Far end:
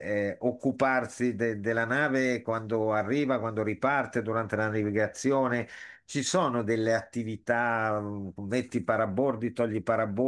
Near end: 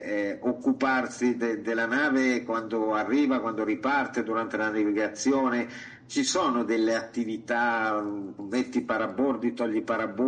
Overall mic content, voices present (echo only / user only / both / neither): echo only